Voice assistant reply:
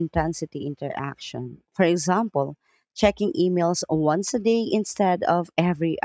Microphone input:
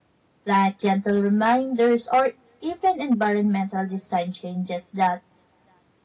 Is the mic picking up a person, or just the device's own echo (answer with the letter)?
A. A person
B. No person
A